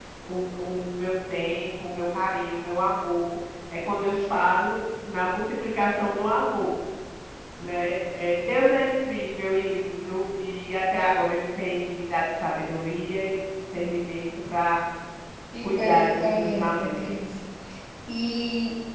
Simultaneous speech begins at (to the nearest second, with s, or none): 16 s